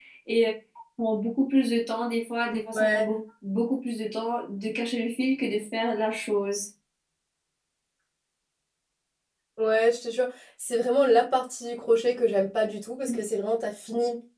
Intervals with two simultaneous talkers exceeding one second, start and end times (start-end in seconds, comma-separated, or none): none